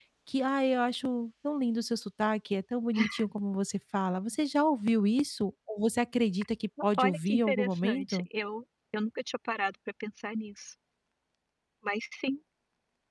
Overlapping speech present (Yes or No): Yes